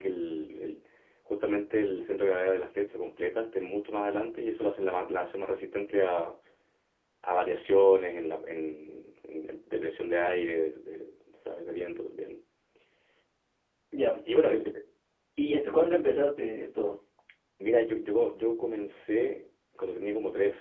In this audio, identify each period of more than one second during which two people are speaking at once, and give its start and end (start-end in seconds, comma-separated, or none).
none